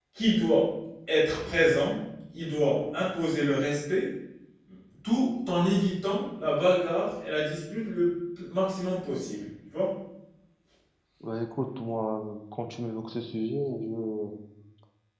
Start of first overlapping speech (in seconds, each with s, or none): none